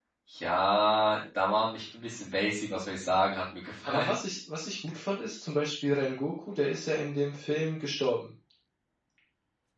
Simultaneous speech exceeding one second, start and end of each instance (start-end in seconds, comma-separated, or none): none